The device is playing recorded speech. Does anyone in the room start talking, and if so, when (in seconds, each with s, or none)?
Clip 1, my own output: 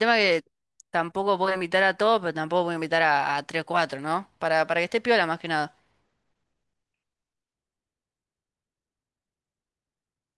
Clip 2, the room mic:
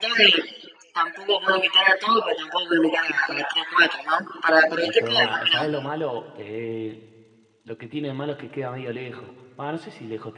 4.8 s